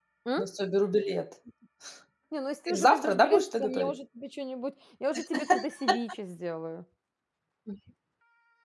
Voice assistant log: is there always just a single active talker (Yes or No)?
No